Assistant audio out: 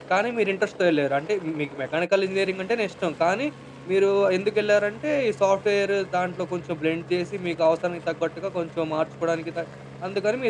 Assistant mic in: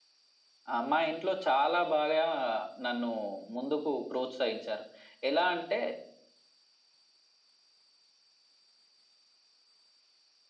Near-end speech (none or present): present